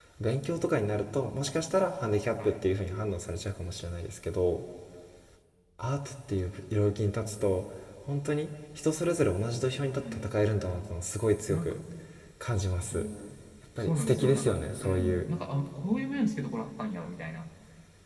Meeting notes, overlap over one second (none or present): present